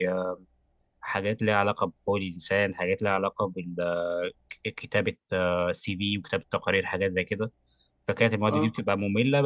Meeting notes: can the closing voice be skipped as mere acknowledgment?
Yes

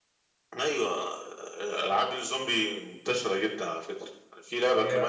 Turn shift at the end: No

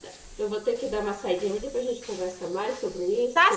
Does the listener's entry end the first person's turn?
Yes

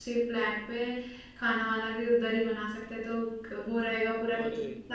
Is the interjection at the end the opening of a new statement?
Yes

